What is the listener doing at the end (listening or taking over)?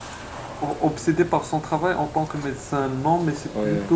listening